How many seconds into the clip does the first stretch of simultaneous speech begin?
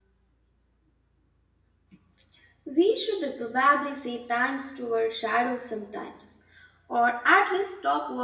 none

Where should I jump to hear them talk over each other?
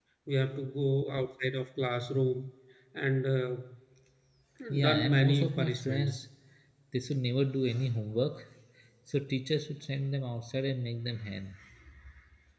4.8 s

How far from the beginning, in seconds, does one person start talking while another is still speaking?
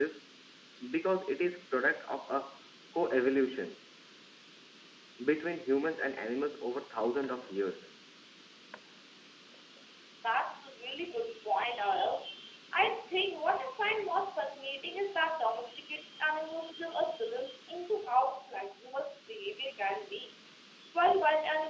none

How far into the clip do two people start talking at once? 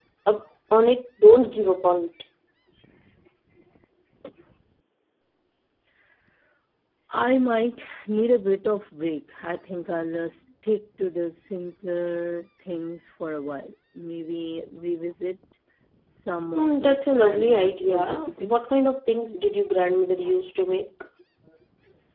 16.5 s

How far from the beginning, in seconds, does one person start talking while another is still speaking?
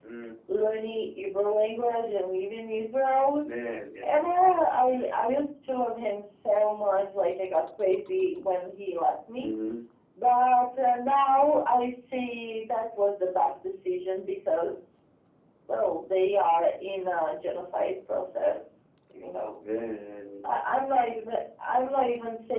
none

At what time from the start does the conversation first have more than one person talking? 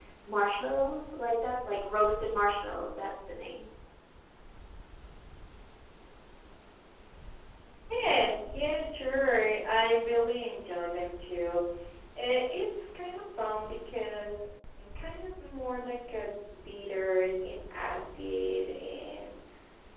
none

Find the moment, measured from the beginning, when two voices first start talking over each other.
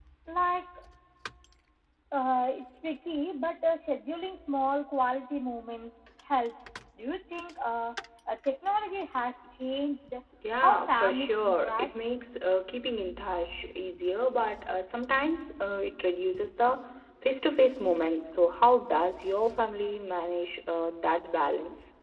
10.6 s

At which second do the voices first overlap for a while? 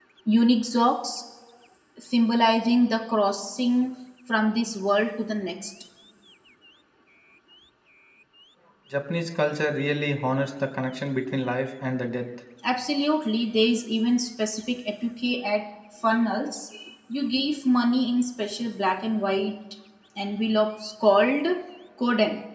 none

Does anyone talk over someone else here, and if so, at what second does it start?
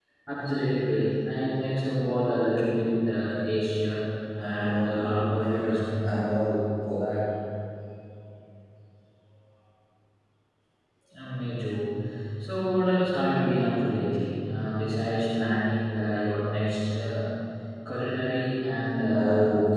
4.4 s

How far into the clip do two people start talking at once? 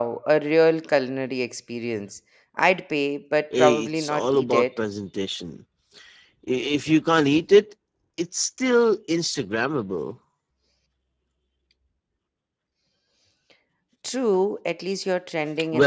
3.5 s

